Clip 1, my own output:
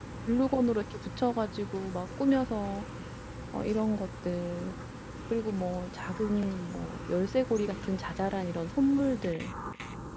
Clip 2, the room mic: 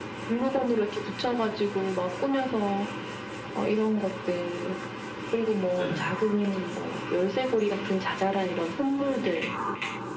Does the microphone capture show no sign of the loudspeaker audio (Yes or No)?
No